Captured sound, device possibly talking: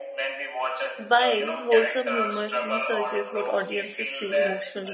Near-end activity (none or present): present